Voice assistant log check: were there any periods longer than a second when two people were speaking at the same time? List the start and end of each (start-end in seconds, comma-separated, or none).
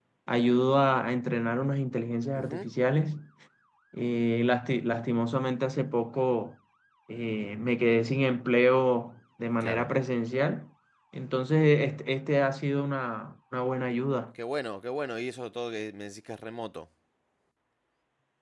none